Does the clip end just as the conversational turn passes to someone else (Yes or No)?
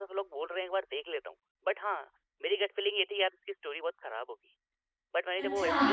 No